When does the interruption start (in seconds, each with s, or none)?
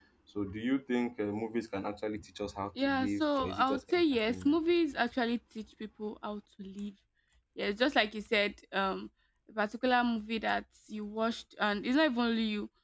2.8 s